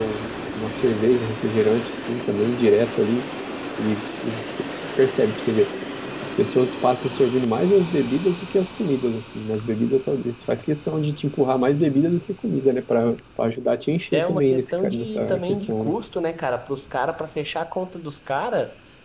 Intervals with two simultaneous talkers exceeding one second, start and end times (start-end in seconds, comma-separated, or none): 14.1-15.9